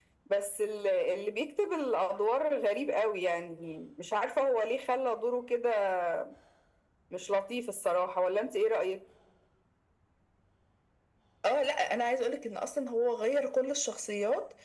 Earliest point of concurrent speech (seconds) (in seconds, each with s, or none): none